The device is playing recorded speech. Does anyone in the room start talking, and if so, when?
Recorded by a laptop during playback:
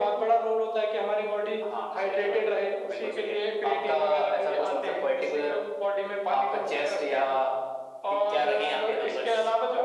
none

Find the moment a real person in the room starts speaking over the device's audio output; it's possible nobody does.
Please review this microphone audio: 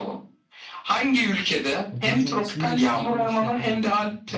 1.9 s

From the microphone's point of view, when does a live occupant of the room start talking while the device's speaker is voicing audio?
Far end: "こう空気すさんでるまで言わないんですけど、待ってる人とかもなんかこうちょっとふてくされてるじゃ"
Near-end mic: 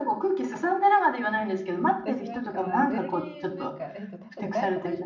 2.0 s

